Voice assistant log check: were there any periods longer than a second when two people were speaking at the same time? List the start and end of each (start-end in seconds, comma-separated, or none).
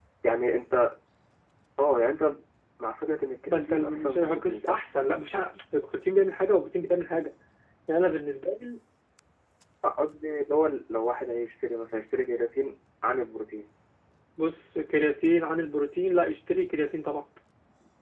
3.5-4.8